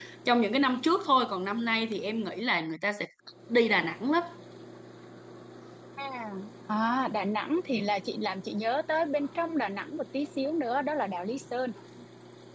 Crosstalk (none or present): none